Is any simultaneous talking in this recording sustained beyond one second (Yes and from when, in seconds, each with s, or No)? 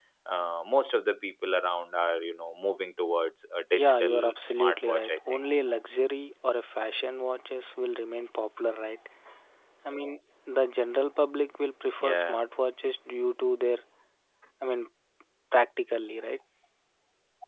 Yes, from 3.7 s